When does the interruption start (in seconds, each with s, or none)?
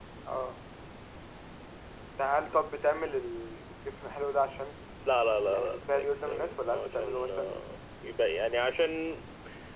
5.4 s